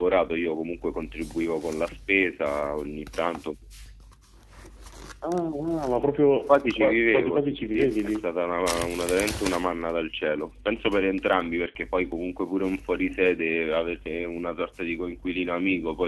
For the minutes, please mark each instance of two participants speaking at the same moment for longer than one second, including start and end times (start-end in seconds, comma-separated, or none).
6.5-8.3